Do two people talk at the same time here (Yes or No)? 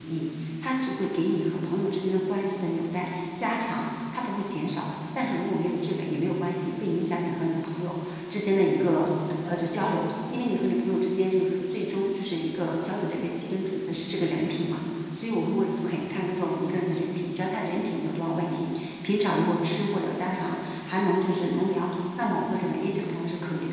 No